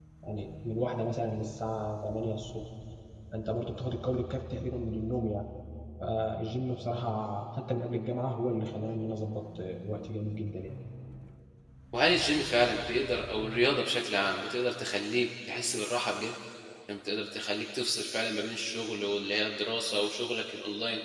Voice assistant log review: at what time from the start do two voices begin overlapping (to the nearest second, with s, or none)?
none